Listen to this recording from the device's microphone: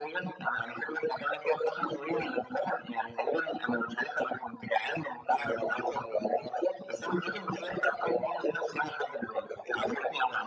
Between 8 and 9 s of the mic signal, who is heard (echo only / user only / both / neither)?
echo only